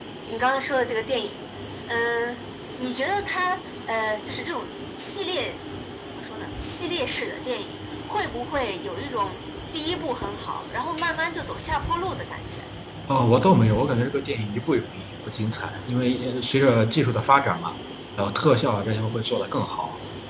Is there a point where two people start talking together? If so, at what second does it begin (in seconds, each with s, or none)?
none